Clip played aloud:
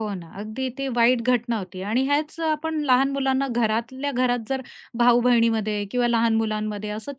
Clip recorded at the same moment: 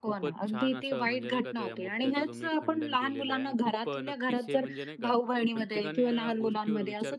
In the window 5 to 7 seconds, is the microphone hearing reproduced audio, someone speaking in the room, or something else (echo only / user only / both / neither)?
both